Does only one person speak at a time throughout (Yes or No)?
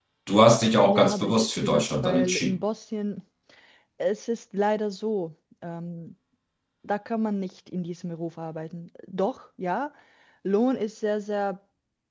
No